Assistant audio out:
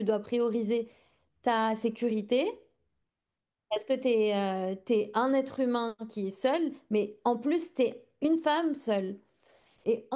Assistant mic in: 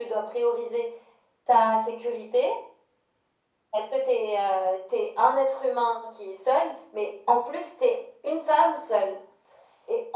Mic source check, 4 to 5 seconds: echo only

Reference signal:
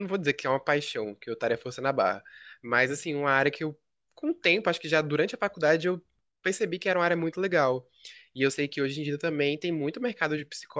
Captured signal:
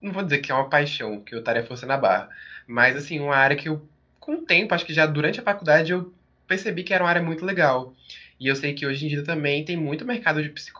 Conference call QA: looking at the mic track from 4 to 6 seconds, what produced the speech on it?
echo only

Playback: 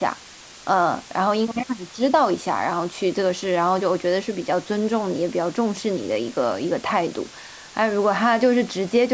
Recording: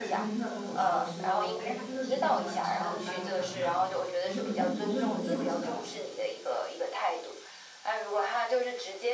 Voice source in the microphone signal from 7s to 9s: echo only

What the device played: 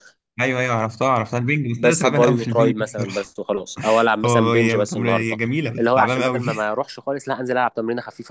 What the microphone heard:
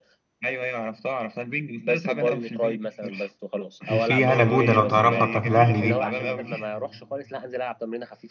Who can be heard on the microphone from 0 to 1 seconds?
echo only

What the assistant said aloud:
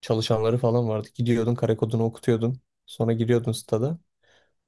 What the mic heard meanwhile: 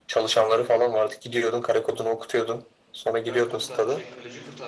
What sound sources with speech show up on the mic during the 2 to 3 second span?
echo only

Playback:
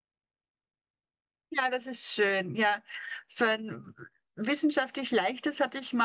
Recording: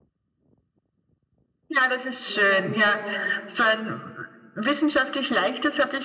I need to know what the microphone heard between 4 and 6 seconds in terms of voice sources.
echo only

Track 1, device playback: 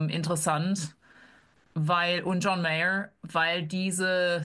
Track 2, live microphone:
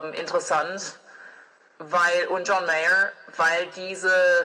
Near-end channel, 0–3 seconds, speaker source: echo only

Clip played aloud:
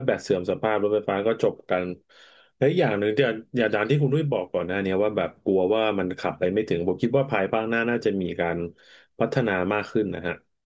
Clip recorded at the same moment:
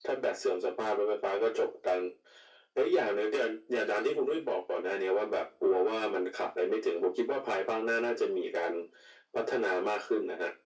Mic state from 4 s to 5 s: echo only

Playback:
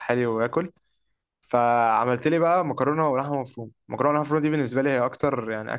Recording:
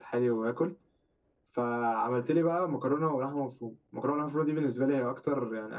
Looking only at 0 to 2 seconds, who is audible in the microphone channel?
echo only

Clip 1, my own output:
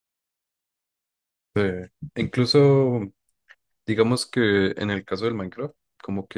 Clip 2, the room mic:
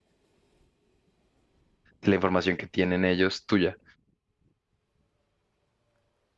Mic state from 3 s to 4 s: user only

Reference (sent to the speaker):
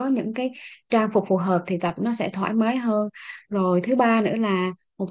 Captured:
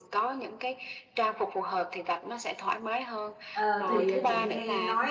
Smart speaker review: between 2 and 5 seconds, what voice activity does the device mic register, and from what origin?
both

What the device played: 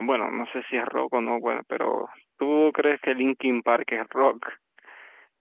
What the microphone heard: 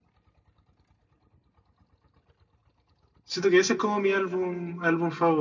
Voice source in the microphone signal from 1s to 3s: neither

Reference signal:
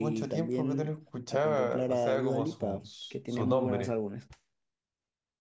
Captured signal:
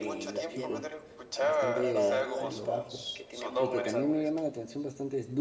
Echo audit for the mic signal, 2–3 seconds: both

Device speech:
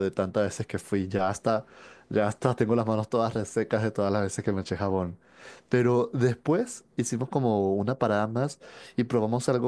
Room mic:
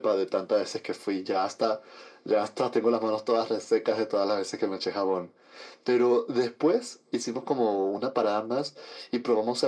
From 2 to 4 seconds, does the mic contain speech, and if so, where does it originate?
echo only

